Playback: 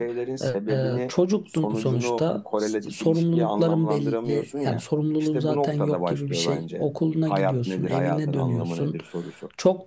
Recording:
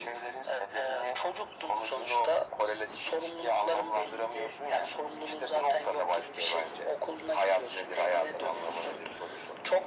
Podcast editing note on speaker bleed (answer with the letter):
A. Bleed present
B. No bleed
A